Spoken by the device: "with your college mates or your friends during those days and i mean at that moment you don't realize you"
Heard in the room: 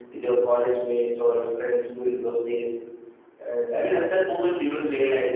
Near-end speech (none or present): none